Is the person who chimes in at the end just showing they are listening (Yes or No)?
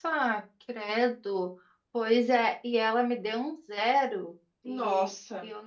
Yes